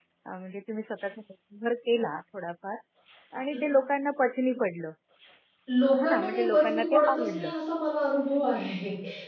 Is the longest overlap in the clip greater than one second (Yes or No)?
Yes